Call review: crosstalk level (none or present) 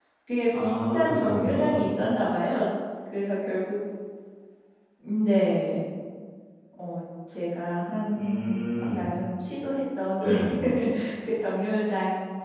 present